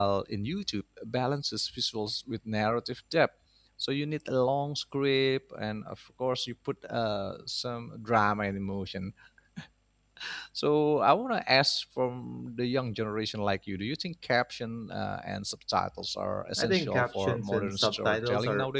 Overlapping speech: Yes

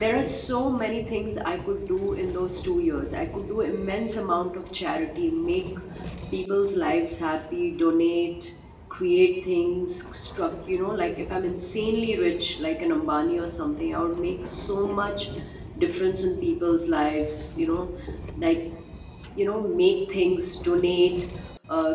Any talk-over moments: No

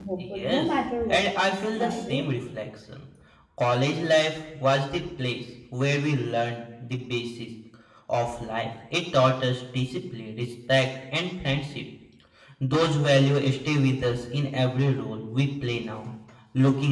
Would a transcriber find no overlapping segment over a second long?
No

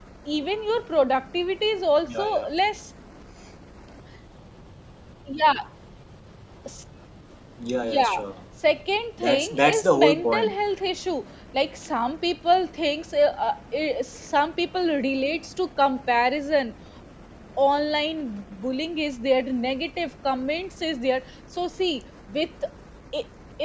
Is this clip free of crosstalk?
No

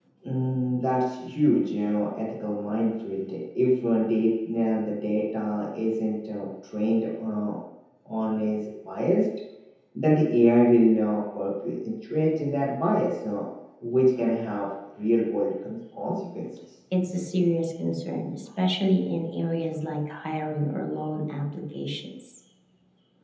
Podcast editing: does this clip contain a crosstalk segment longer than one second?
No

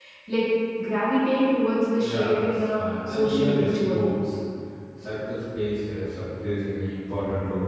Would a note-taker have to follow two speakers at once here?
Yes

